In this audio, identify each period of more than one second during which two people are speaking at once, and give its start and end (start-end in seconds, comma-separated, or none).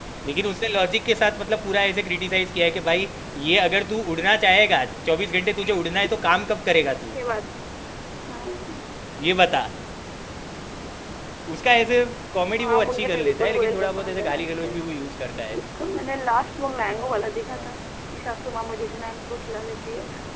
12.6-14.7